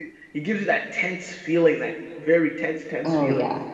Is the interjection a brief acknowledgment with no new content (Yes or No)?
No